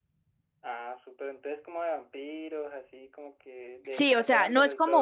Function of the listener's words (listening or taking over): taking over